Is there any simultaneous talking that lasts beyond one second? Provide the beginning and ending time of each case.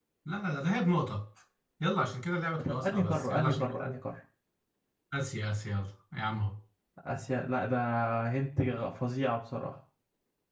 2.6-3.9

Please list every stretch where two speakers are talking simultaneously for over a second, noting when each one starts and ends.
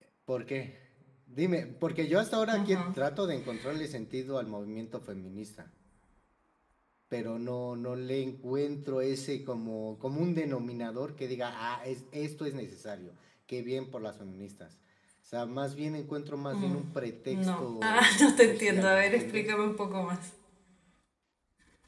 17.3-19.5

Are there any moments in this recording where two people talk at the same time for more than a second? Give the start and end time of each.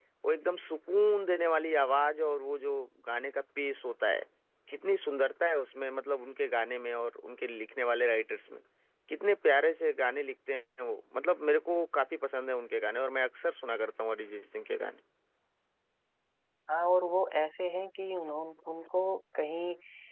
none

